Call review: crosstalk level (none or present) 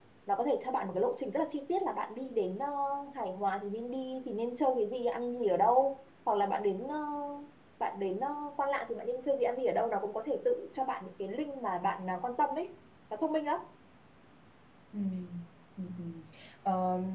none